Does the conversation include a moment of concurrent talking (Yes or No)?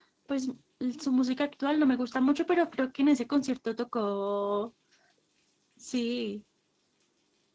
No